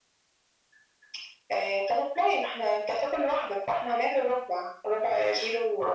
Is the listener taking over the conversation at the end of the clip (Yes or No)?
Yes